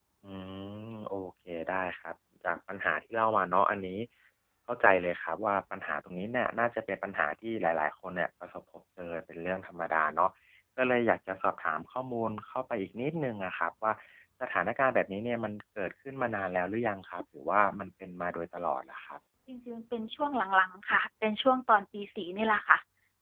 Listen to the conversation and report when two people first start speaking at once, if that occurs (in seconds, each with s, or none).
none